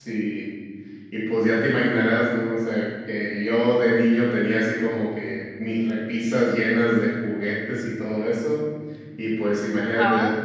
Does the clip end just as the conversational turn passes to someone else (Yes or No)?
No